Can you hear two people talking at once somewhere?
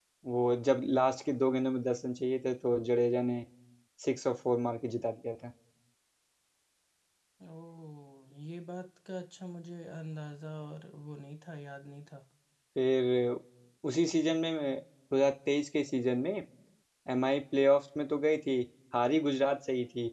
No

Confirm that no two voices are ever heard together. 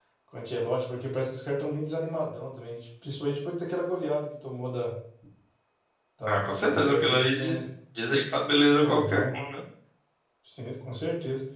No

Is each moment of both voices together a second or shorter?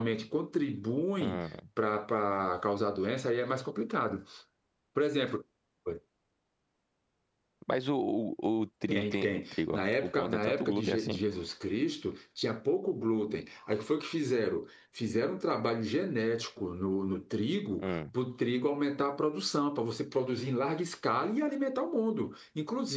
No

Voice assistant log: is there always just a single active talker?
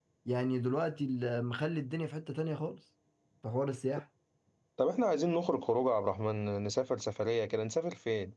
Yes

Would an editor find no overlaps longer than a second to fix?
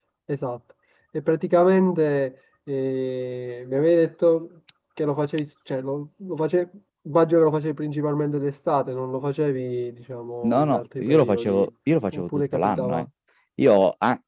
No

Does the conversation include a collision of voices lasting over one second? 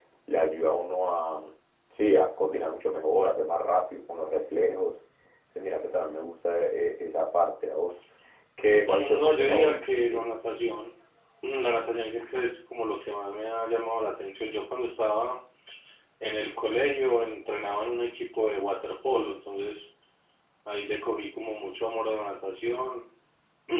Yes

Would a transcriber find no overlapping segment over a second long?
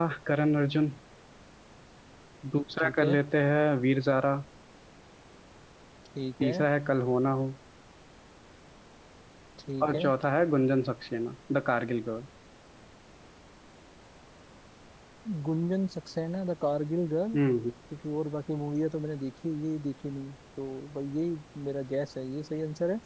Yes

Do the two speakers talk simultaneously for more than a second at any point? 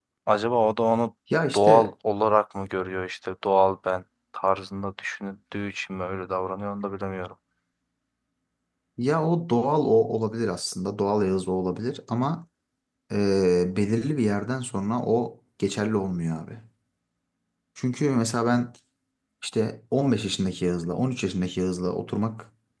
No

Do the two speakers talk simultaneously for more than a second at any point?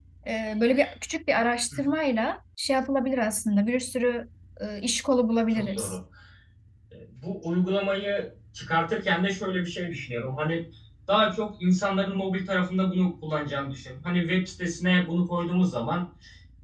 No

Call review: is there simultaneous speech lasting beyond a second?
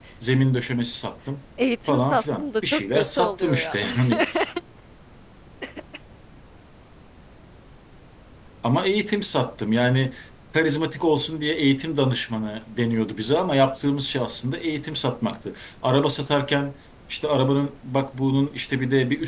Yes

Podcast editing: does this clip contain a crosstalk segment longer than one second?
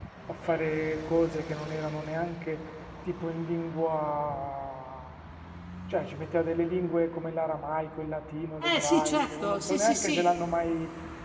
Yes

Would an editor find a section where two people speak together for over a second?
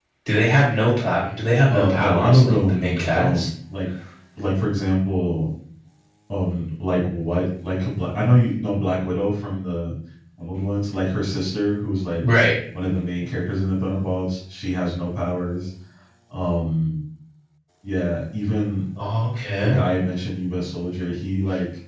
Yes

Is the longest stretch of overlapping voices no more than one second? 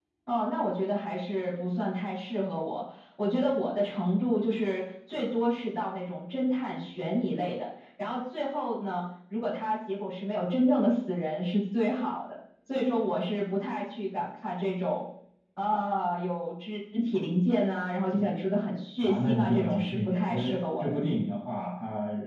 No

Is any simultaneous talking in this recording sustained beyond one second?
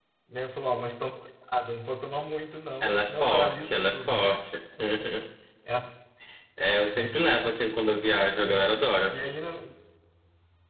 Yes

